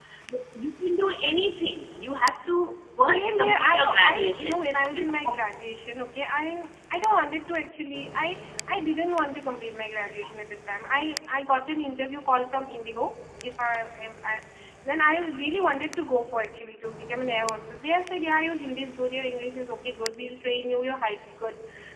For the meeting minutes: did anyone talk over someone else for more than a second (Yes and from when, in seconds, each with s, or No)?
Yes, from 3.1 s